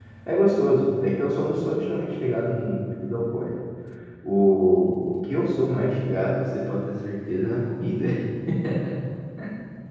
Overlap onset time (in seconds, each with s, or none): none